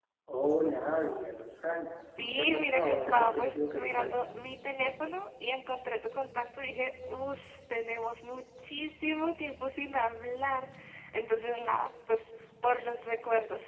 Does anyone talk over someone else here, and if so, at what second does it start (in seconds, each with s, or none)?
2.2 s